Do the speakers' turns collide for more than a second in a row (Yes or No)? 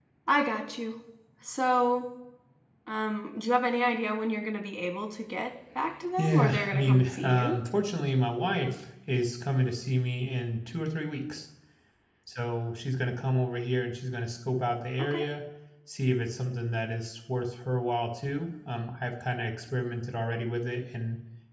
Yes